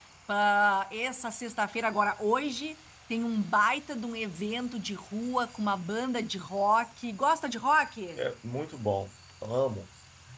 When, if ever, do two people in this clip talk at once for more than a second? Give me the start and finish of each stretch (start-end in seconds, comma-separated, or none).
none